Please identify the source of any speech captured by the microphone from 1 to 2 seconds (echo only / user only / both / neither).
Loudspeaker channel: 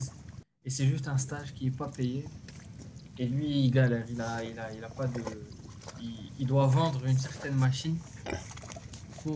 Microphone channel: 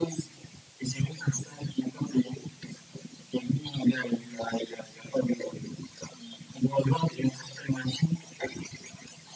echo only